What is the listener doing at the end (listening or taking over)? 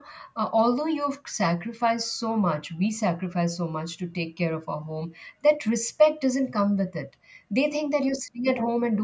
listening